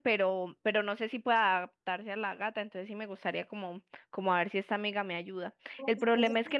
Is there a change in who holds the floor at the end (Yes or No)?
No